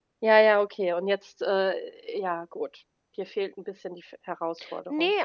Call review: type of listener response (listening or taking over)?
taking over